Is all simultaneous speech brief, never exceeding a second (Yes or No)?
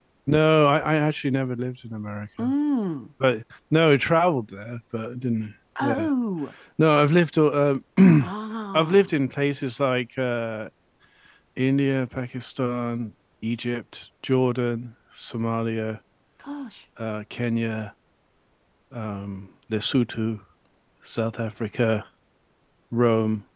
Yes